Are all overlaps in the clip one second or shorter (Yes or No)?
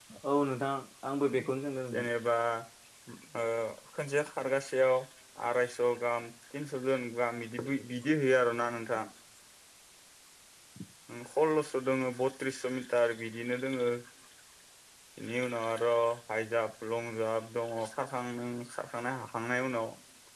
Yes